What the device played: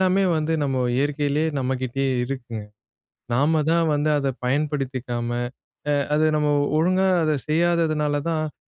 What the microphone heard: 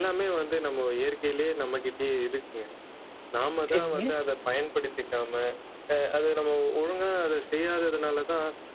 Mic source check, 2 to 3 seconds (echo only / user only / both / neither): echo only